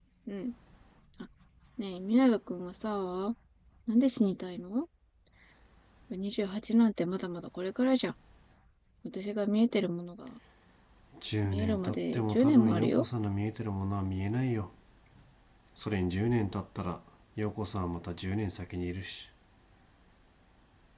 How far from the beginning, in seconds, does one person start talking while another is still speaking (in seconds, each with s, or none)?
11.4 s